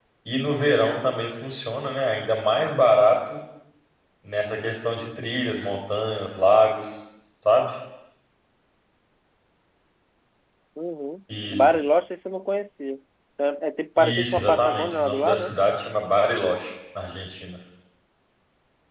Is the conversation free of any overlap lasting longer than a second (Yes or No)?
No